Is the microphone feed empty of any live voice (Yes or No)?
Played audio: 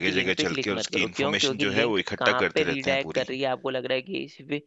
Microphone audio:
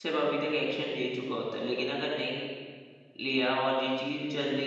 No